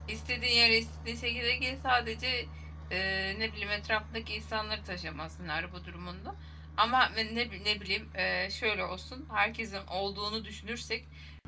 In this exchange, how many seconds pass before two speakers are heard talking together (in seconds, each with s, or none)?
none